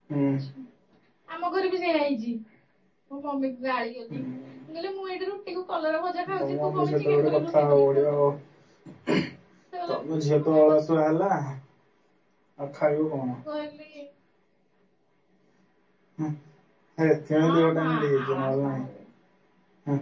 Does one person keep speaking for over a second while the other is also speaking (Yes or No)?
Yes